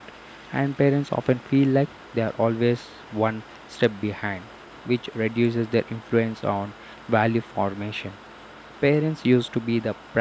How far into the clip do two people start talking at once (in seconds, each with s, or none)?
none